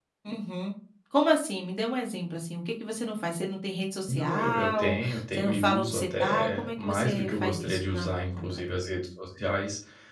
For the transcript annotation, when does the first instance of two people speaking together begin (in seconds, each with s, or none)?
4.1 s